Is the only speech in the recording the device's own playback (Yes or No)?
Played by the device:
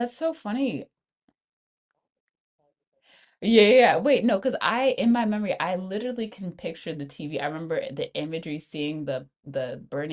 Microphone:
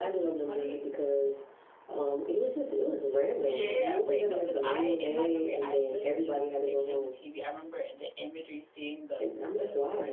No